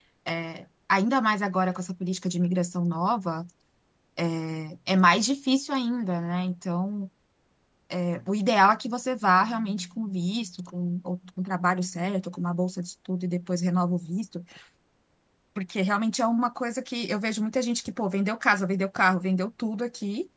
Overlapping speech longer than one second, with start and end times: none

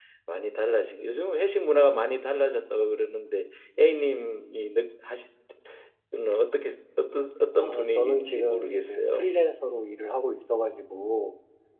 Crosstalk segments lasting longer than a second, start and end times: 7.6-9.3

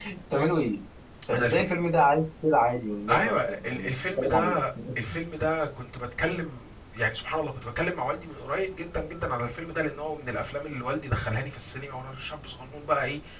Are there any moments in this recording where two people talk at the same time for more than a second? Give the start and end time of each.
3.1-4.6

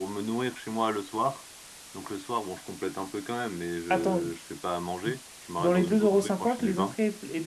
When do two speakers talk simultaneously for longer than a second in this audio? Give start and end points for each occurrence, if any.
5.6-6.9

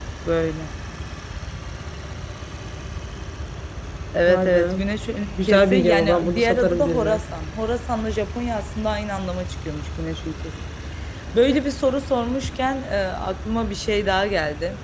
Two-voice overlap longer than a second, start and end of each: 5.4-7.2

